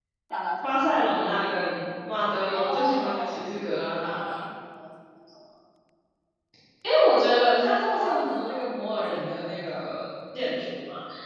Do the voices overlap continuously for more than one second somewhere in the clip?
Yes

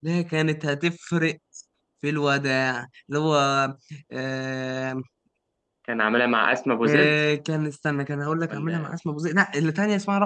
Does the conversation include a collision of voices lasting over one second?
No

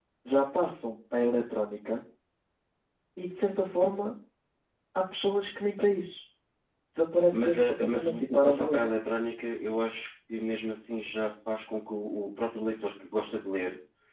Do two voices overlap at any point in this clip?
Yes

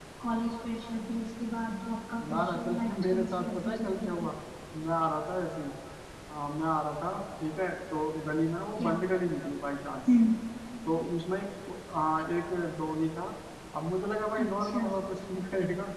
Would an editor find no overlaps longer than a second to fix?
No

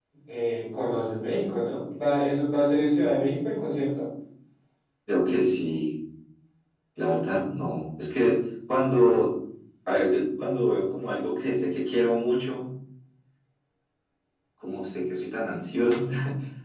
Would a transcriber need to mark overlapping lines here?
No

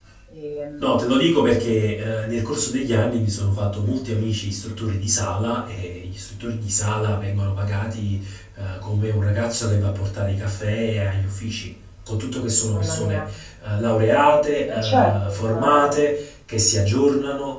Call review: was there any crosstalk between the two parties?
Yes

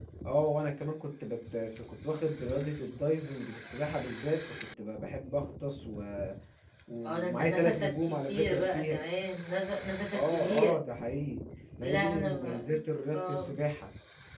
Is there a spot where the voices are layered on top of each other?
Yes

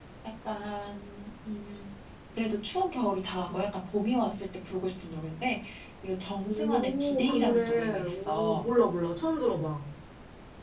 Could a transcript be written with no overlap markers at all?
No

